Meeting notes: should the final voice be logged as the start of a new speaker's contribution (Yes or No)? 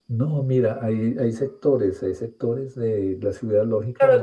Yes